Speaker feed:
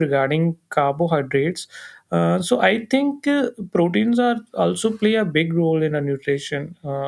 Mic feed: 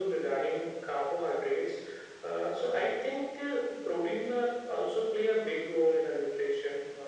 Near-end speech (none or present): none